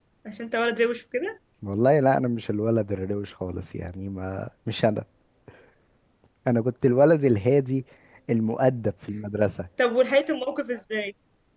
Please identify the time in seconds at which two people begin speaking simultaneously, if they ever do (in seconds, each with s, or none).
none